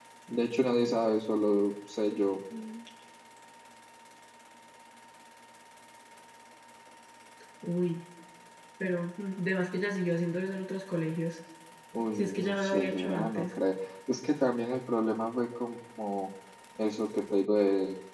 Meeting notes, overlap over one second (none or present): present